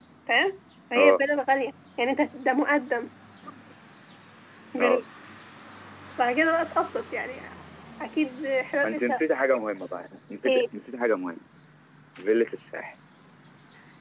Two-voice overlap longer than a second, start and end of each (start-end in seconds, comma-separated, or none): none